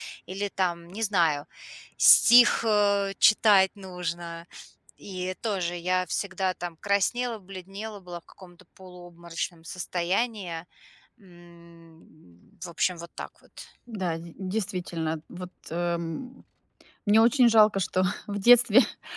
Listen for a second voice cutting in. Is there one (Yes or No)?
No